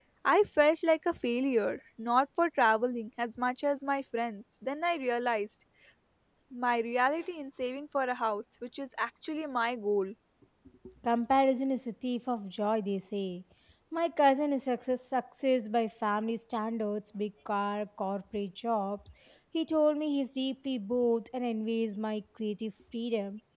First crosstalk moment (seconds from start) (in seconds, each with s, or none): none